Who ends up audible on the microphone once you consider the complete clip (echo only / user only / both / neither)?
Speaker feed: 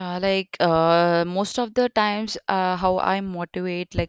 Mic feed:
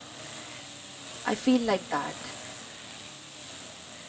user only